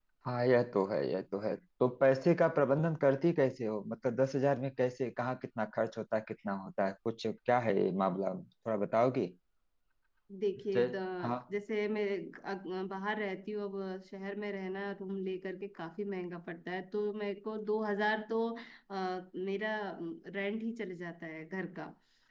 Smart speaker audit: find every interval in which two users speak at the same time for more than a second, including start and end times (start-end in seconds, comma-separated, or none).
none